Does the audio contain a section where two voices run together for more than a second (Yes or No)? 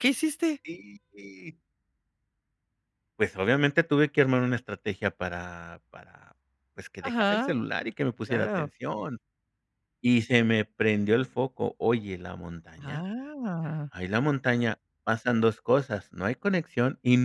No